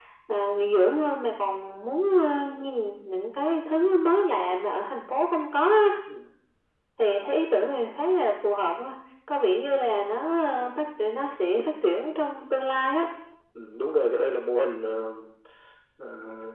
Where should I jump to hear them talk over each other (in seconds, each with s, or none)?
none